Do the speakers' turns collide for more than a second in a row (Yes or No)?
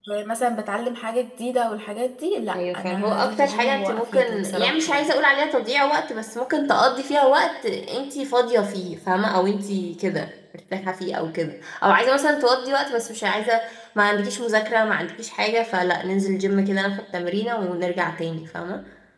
Yes